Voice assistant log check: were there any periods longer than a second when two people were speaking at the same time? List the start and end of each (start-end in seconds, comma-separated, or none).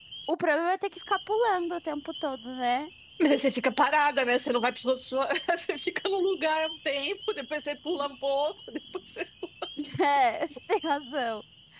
none